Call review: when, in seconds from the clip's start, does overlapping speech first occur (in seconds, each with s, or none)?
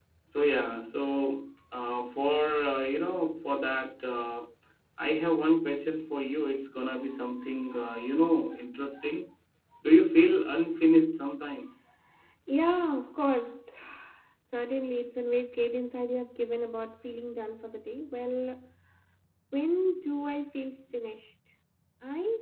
none